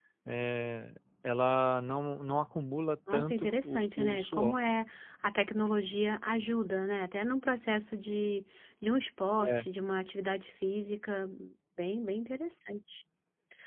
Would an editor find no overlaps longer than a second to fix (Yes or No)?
No